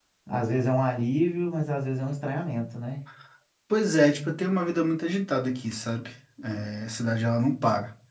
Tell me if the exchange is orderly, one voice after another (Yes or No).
Yes